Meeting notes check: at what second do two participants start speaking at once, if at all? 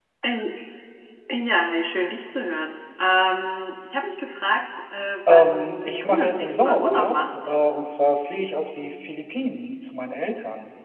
5.3 s

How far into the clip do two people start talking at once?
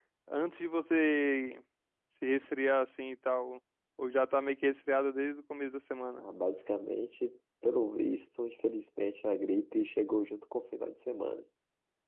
none

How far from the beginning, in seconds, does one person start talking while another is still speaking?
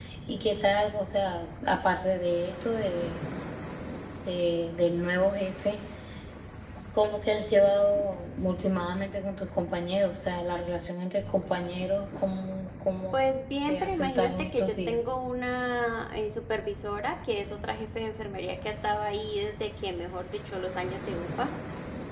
13.7 s

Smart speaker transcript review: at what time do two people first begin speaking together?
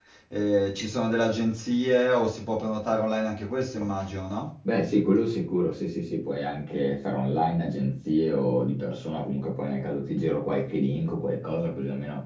none

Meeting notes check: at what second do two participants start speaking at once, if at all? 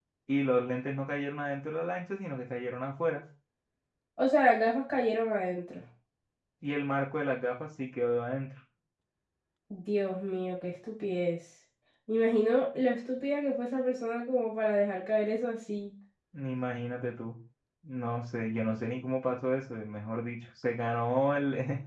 none

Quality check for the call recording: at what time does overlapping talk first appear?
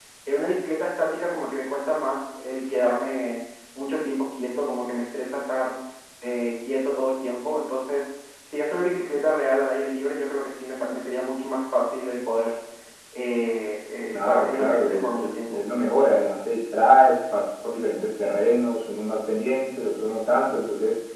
14.1 s

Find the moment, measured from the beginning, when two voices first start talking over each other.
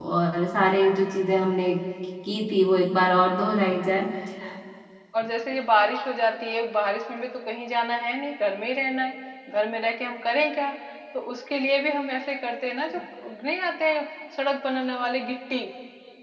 none

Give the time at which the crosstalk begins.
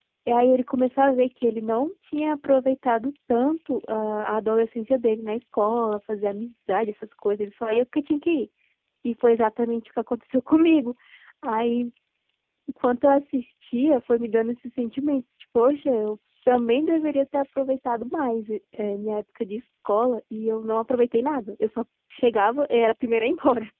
none

